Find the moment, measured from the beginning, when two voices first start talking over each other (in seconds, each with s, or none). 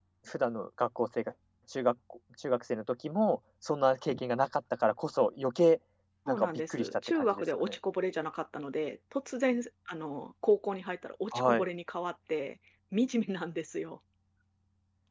6.3 s